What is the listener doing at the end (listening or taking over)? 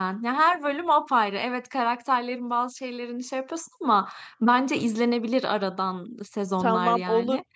taking over